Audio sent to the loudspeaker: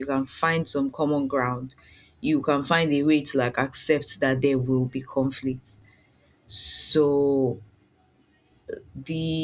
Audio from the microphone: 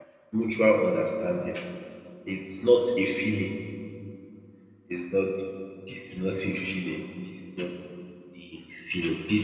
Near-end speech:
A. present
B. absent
A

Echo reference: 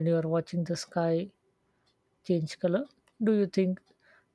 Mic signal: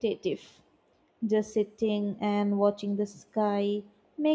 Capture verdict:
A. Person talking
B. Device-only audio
A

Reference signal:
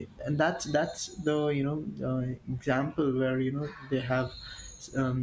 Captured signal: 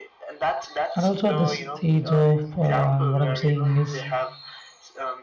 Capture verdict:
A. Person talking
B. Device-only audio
A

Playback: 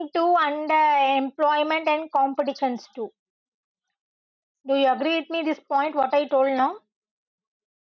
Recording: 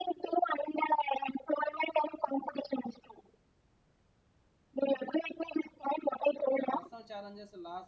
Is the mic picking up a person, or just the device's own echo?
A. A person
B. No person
A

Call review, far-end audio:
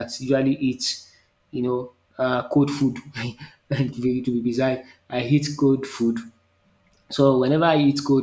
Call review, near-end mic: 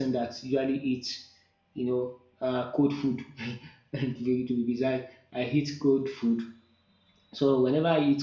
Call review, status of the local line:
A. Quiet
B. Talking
A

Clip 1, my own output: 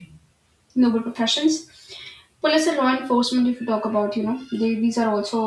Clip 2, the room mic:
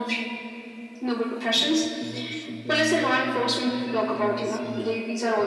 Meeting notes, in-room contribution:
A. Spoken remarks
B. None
A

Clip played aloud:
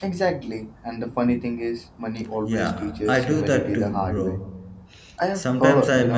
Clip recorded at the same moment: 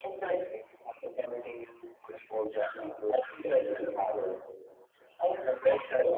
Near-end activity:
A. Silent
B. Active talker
A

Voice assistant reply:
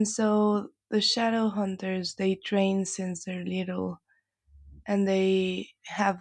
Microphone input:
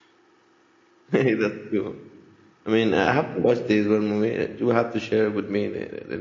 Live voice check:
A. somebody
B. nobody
A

